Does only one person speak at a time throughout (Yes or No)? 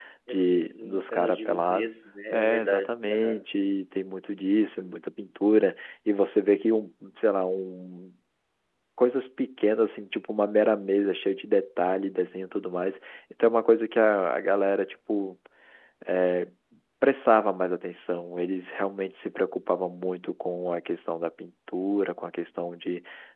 No